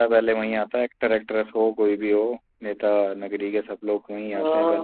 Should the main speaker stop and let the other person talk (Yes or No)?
Yes